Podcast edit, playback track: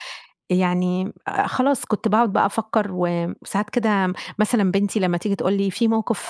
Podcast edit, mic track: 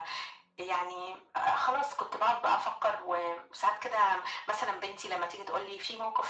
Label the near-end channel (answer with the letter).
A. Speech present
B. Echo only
B